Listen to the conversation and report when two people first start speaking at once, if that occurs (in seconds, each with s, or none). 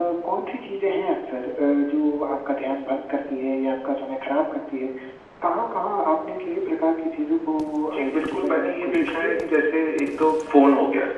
8.0 s